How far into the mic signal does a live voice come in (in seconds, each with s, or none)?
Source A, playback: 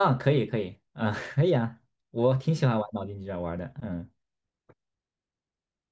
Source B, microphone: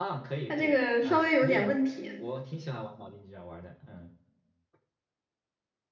0.5 s